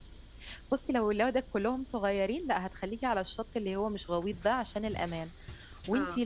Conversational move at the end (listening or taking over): listening